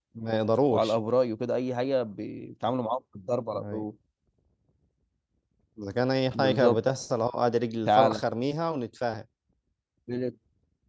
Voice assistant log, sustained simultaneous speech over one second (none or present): none